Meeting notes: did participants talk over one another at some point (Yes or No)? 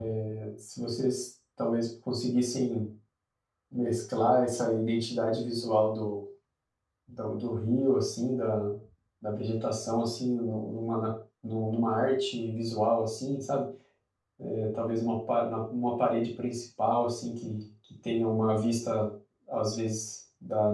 No